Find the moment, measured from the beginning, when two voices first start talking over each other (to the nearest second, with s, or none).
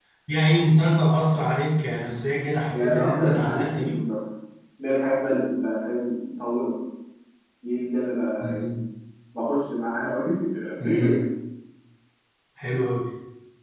3 s